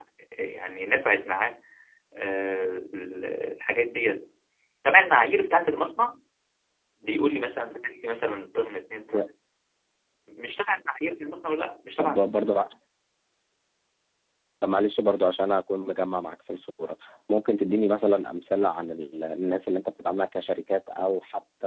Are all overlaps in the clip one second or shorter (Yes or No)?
Yes